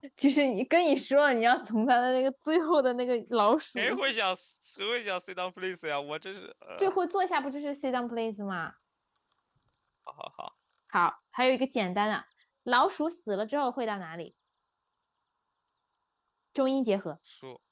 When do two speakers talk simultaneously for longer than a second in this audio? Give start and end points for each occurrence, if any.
none

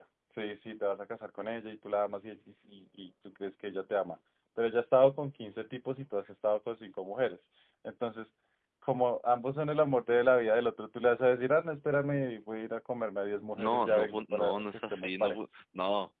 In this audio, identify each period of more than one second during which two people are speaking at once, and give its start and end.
13.6-15.3

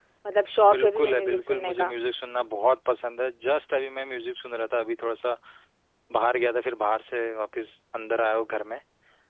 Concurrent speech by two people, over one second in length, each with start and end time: 0.7-1.9

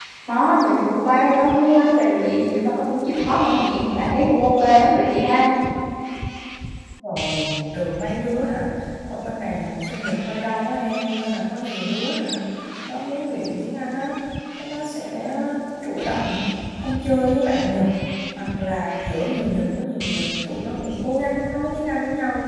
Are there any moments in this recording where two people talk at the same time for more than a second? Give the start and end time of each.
none

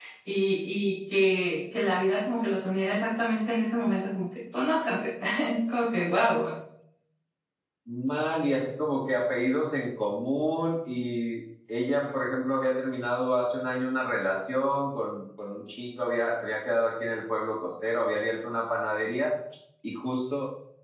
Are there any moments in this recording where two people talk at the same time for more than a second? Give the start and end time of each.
none

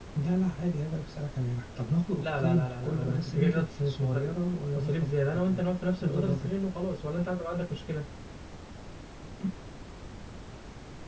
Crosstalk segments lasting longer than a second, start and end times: 2.2-4.3

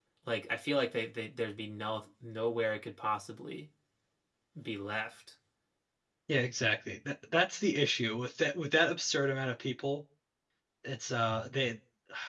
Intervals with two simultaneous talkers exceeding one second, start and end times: none

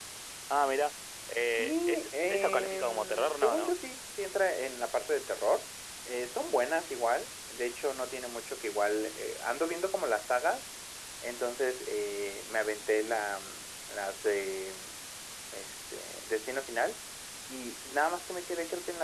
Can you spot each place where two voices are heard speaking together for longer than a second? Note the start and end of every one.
1.4-3.7

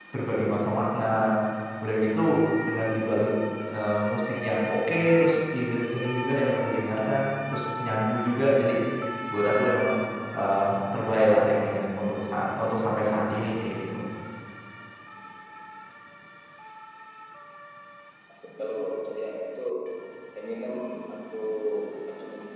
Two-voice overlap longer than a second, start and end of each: none

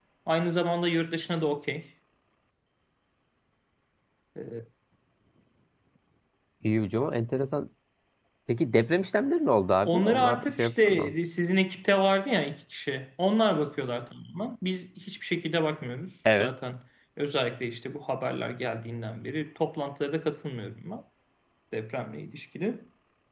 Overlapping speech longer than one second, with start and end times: 9.9-11.1

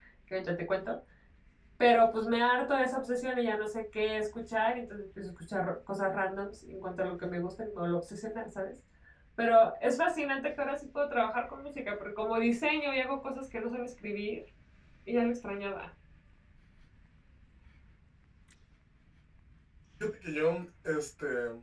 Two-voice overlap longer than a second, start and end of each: none

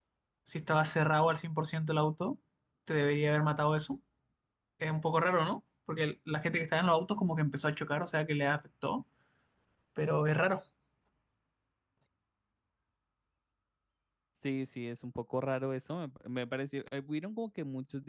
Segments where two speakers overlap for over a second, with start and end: none

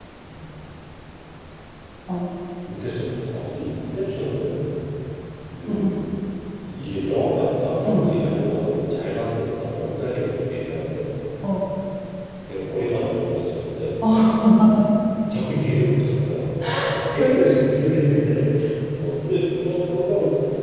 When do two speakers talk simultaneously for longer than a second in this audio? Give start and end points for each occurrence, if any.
none

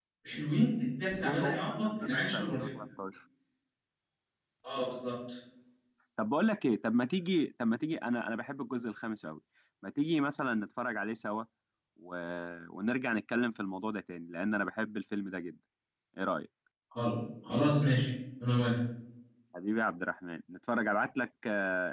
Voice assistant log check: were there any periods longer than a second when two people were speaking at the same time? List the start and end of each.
1.2-2.7

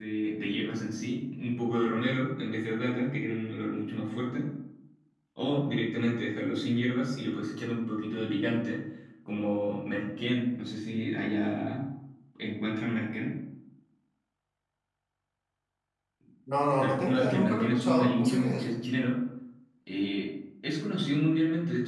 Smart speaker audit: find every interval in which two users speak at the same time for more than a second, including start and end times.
16.8-18.7

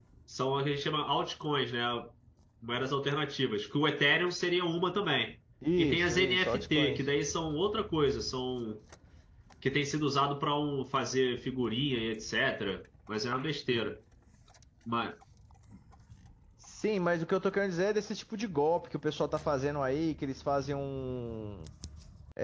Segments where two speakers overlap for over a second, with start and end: 5.8-7.0

